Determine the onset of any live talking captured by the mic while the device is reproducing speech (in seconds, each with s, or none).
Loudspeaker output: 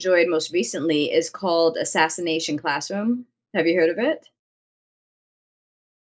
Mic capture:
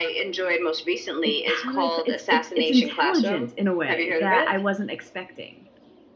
1.2 s